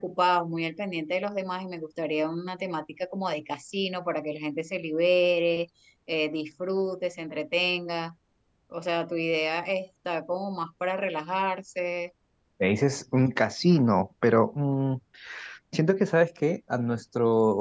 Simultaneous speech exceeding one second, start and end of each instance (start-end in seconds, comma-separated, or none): none